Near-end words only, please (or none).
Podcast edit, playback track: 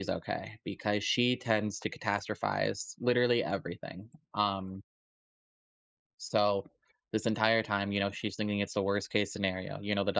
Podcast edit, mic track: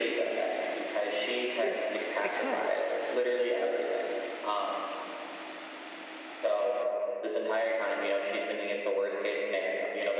just because.